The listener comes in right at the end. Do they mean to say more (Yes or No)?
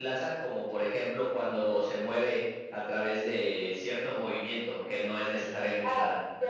Yes